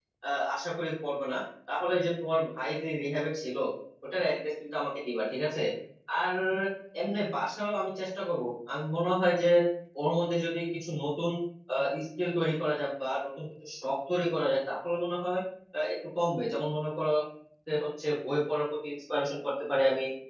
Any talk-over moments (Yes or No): No